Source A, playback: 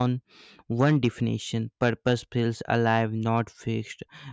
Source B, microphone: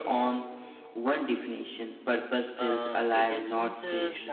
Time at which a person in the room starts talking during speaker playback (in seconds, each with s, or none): 2.5 s